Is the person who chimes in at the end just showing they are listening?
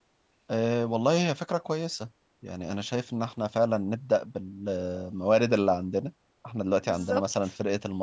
Yes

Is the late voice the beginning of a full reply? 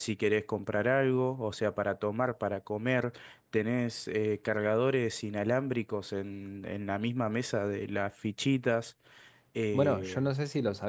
Yes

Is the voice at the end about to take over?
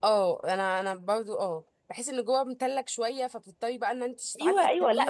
Yes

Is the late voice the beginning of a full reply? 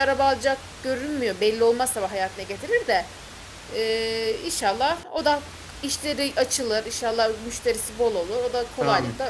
Yes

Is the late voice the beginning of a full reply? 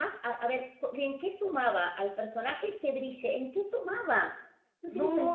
Yes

